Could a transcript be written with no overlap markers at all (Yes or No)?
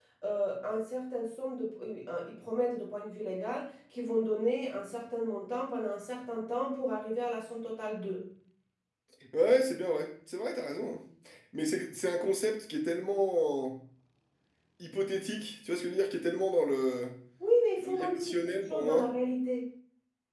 No